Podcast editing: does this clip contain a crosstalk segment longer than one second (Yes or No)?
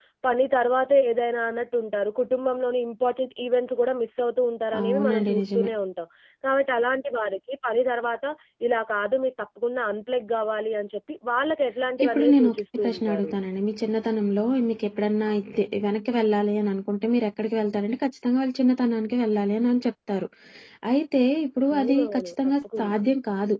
Yes